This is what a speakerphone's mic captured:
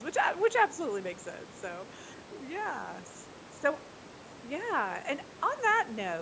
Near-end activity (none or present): present